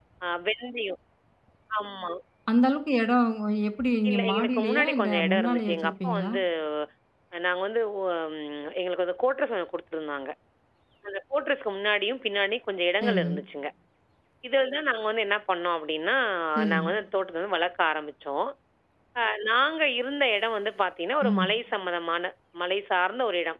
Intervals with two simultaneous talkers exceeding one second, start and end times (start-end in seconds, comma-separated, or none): 4.1-6.3